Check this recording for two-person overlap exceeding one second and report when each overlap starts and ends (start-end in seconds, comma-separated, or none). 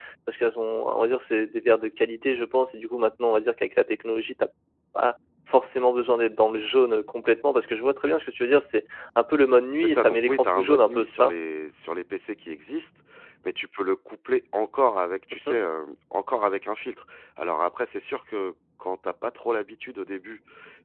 9.7-11.3